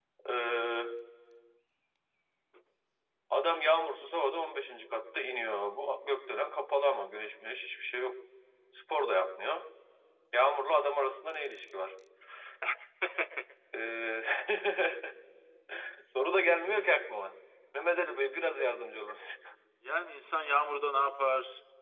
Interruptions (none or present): none